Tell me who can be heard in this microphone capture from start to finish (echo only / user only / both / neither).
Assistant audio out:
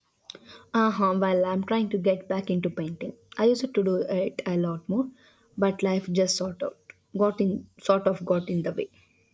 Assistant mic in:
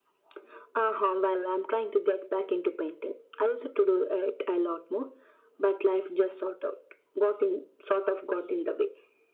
echo only